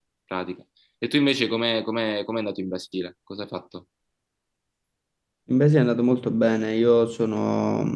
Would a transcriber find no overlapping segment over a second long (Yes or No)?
Yes